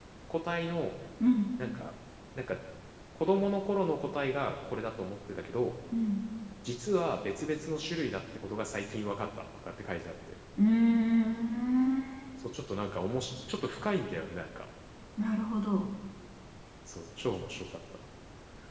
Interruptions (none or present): none